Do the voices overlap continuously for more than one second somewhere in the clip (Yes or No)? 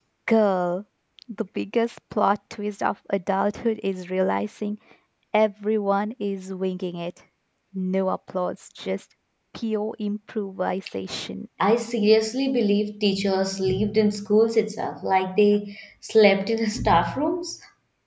No